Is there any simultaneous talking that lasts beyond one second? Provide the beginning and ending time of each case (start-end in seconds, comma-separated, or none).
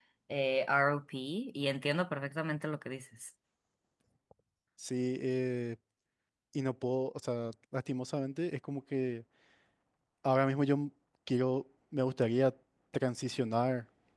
none